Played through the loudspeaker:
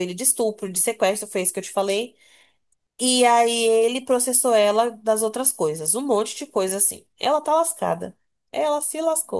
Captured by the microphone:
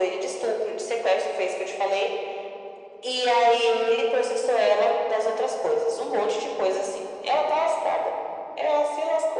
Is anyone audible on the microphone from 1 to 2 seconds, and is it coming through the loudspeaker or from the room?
echo only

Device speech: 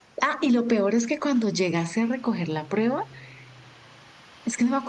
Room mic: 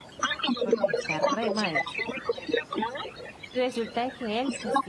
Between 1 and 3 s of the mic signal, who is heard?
both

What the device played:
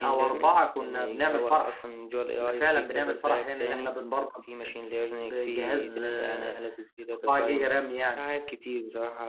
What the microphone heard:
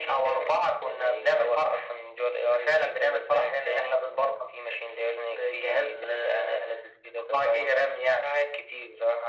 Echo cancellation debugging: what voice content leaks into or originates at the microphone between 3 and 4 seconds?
echo only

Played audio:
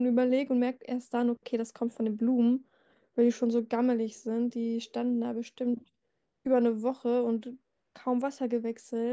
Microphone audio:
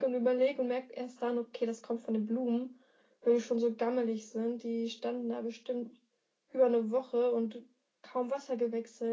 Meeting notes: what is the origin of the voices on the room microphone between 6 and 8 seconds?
echo only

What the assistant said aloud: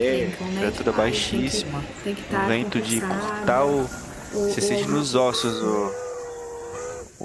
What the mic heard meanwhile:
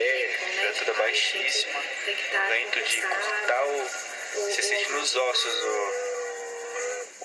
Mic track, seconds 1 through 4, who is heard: echo only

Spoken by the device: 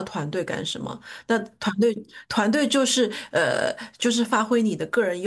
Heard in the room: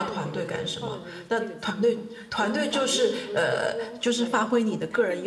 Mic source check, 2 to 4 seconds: both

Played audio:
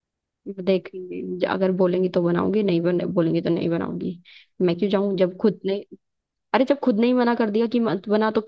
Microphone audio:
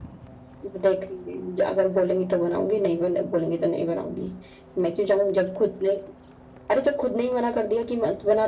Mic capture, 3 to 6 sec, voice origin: echo only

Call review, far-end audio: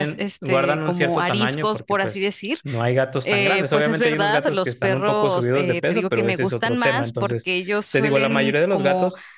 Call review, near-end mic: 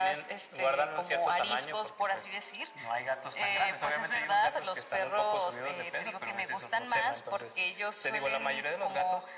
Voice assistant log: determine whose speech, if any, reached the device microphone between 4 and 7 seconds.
echo only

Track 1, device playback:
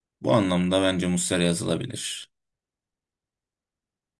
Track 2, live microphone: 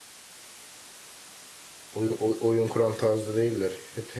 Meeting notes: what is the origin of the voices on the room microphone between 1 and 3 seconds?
user only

